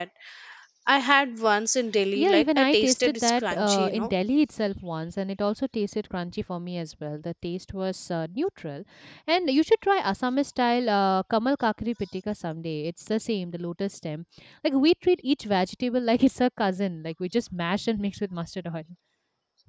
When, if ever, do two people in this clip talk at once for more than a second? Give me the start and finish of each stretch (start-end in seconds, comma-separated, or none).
2.2-4.1